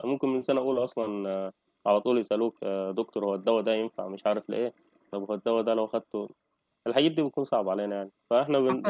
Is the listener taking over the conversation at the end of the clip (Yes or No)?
No